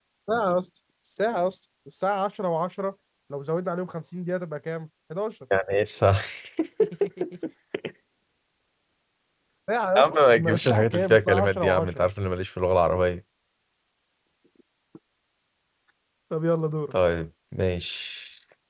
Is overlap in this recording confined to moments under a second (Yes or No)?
No